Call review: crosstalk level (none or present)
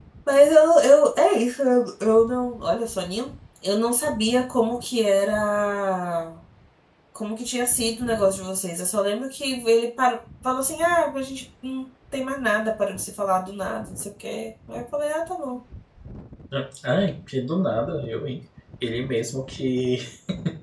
none